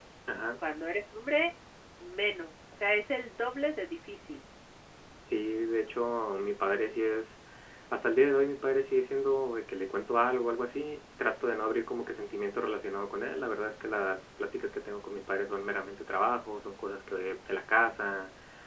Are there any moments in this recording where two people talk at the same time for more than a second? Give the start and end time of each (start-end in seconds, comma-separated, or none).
none